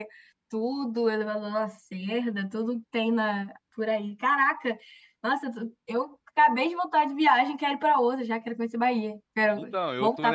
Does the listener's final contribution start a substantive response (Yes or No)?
Yes